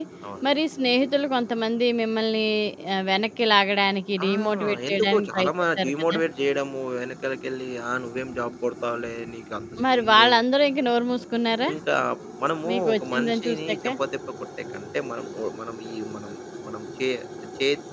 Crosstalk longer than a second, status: present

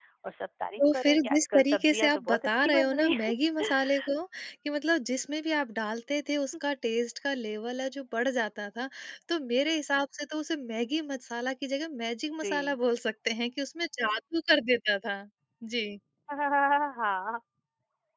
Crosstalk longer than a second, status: present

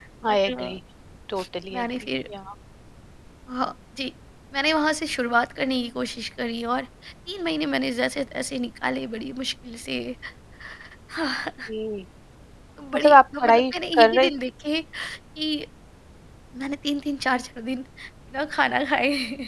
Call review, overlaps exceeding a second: present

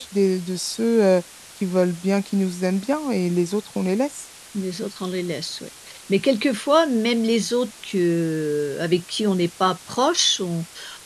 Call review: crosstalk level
none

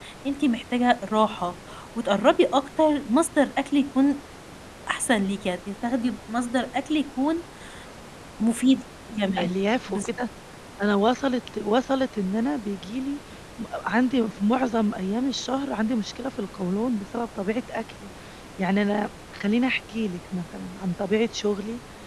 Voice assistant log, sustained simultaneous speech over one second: none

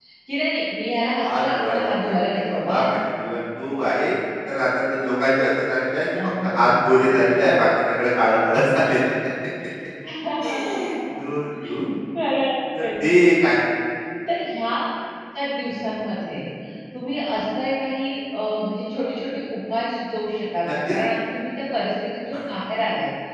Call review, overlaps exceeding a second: present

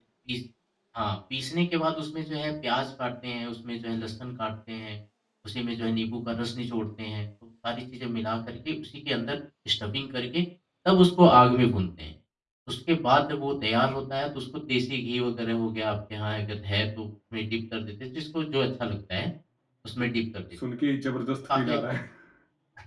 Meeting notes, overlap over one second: none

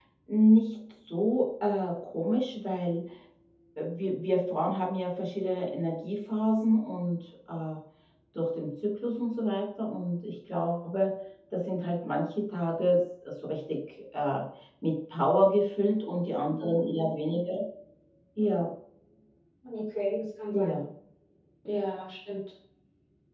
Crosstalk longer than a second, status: none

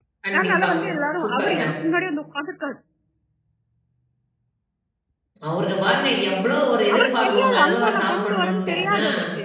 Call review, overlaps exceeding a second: present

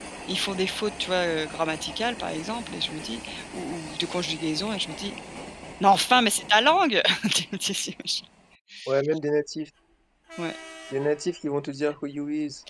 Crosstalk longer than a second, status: none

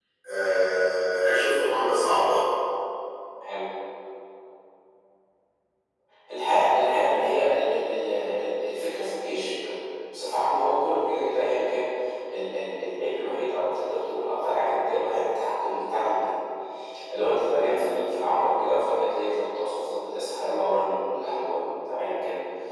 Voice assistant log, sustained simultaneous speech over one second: none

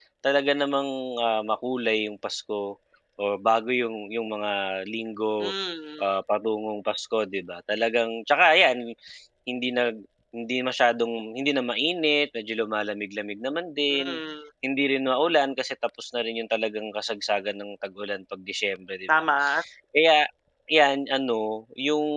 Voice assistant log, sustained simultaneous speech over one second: none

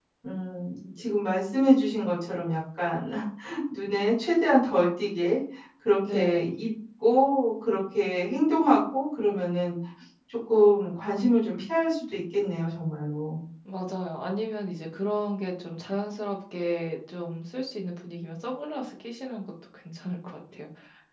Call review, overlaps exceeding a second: none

